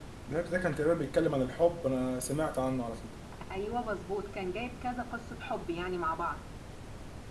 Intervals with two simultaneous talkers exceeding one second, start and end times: none

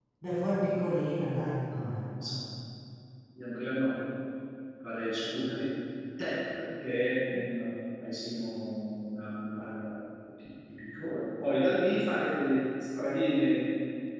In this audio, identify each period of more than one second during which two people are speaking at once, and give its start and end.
none

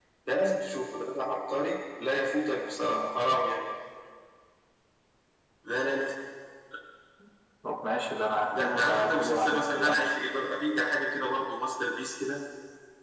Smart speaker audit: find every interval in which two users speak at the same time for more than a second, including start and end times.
8.6-10.0

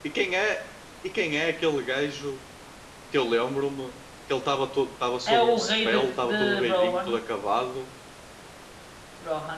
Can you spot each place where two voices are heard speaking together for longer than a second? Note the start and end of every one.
5.3-7.1

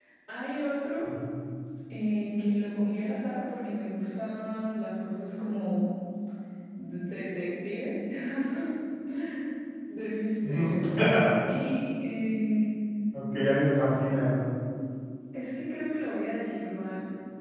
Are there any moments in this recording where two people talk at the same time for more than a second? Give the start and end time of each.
none

